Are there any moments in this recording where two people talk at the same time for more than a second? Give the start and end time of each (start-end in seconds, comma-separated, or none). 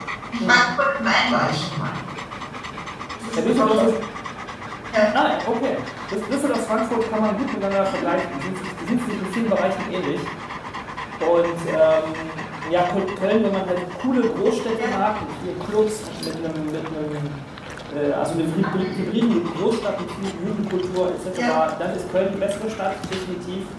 none